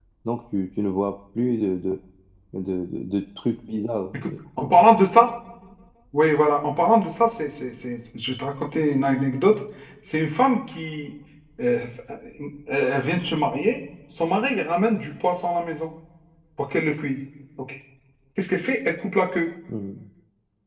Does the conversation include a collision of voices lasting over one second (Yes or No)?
No